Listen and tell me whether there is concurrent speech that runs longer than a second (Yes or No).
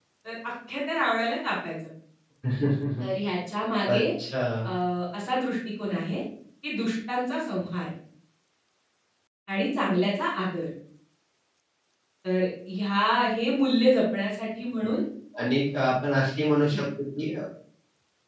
No